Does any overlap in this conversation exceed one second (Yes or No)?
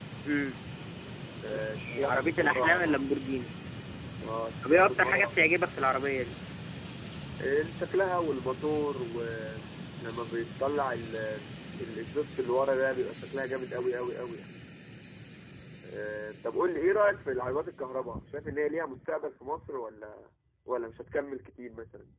Yes